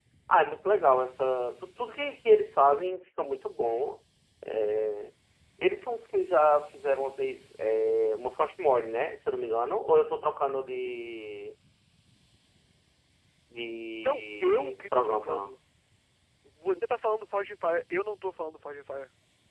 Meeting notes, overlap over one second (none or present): present